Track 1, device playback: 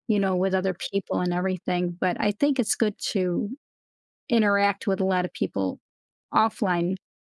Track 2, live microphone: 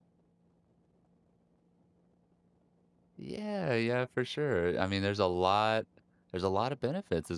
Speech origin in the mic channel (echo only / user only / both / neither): user only